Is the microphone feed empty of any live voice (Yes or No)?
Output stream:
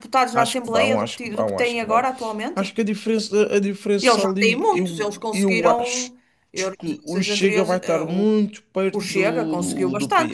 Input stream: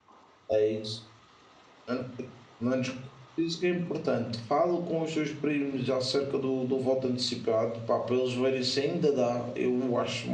No